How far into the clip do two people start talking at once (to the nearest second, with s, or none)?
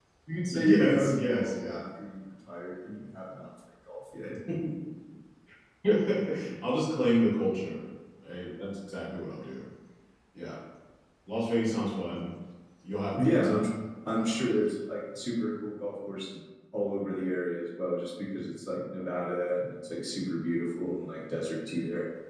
1 s